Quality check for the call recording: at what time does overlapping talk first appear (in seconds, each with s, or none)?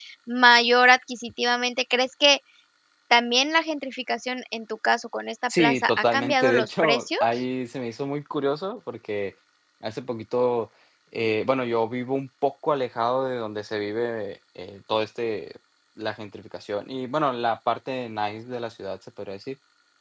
5.5 s